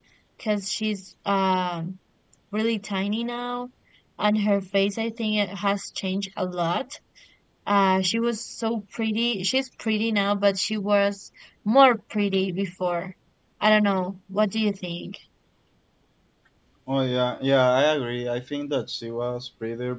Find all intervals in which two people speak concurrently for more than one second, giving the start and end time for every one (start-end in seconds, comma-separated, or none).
none